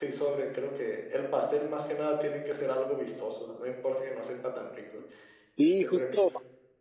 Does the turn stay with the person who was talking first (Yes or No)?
No